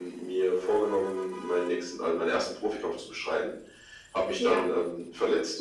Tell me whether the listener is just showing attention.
Yes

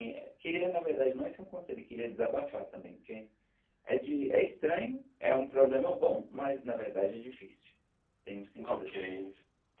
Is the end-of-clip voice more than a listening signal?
Yes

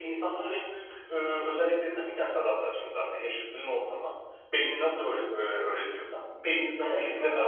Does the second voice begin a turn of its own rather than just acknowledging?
Yes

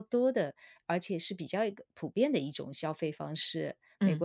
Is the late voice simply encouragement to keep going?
Yes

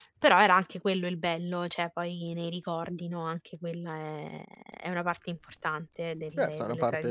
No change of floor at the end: No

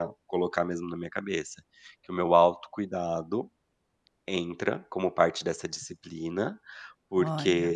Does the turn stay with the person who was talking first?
Yes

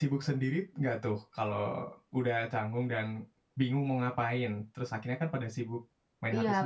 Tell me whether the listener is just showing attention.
No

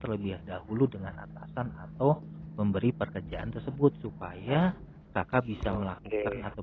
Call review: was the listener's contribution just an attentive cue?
Yes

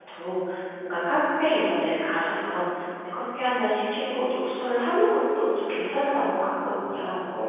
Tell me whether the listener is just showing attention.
No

